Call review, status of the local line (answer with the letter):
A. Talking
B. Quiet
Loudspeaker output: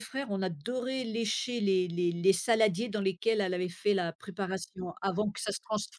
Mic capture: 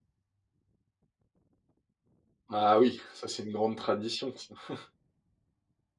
A